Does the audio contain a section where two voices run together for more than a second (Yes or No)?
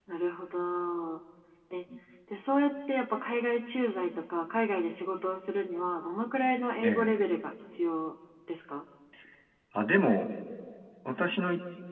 No